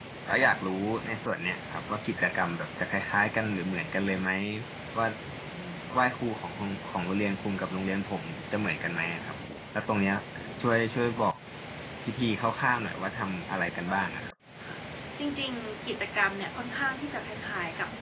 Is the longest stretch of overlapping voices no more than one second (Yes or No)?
Yes